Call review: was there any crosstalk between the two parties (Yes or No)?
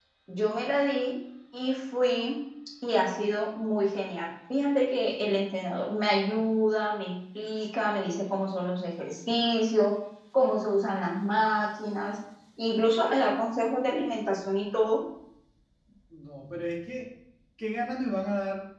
No